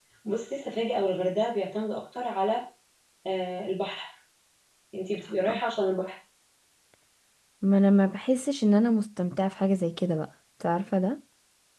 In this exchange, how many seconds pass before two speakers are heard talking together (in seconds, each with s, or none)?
none